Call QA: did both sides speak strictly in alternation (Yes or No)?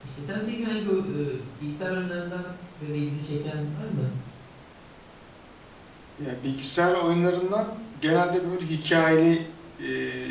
Yes